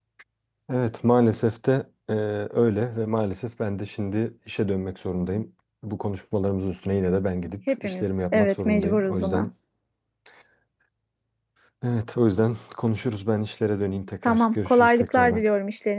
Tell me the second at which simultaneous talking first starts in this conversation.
8 s

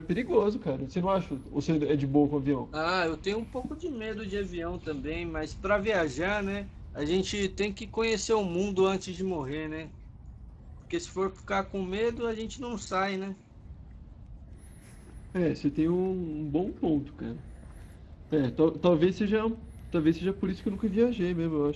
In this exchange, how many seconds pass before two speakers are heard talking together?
none

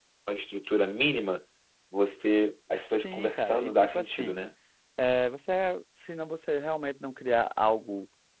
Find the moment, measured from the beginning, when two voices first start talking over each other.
3 s

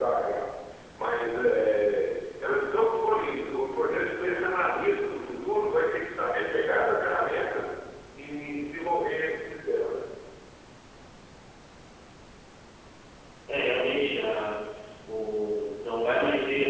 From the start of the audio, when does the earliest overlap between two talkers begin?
none

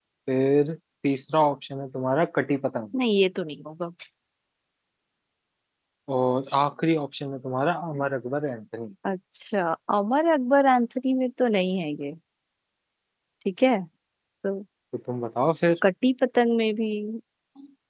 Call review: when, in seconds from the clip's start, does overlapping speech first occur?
none

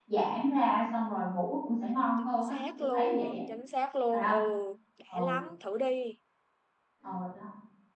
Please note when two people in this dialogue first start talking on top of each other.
2 s

